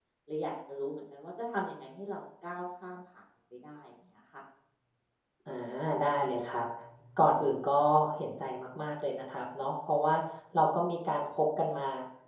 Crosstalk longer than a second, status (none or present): none